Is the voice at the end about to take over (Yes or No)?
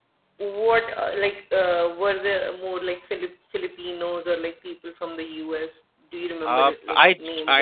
Yes